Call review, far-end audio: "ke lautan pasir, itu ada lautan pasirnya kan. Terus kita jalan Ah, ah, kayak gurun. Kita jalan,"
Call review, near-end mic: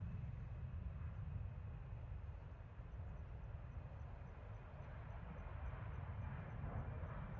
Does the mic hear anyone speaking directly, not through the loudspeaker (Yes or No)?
No